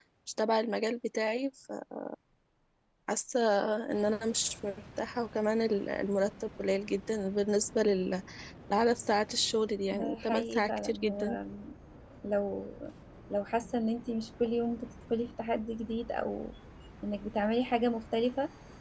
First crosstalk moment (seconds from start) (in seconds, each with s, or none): 9.9 s